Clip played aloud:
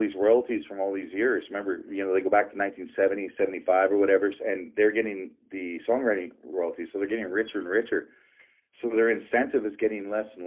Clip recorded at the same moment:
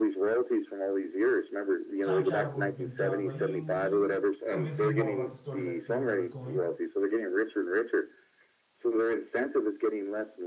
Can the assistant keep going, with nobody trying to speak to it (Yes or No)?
No